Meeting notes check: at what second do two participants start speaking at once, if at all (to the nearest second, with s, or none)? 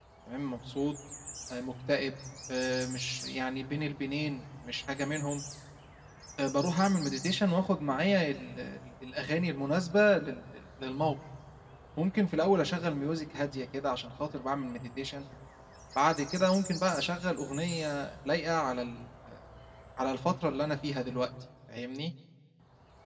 none